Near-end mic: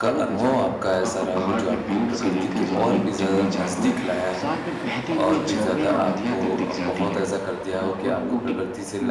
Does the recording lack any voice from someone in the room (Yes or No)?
No